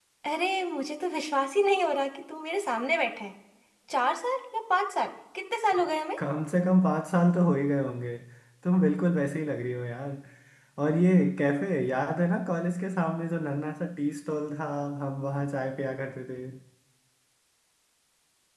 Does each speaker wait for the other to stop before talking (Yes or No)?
Yes